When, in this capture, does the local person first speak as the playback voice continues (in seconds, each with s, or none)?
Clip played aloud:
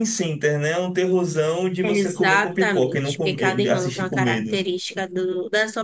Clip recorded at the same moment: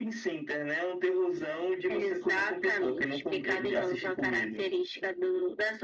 none